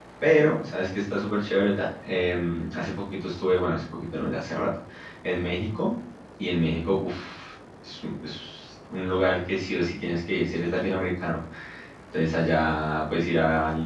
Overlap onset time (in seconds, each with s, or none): none